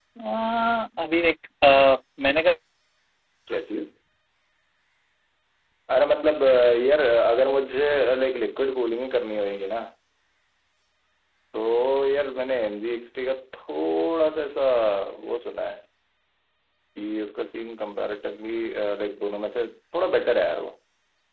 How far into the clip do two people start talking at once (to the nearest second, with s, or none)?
none